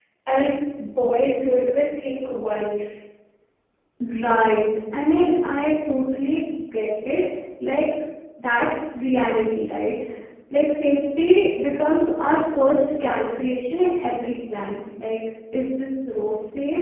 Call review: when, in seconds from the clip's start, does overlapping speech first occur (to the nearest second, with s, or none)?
none